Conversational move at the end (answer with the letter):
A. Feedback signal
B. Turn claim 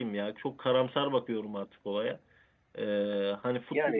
A